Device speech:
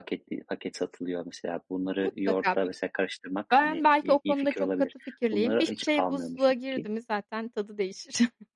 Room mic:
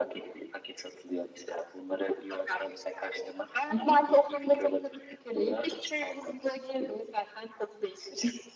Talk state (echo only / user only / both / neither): both